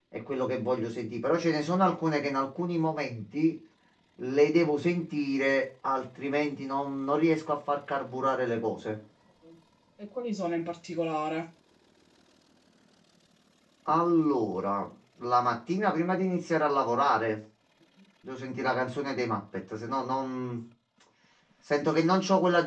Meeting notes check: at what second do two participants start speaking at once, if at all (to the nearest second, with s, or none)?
none